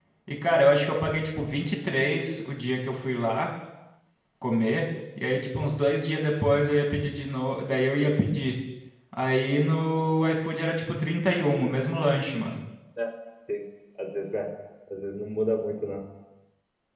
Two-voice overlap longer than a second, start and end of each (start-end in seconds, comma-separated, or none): none